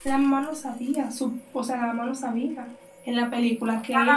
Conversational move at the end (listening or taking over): taking over